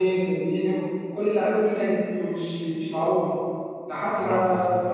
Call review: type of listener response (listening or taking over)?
listening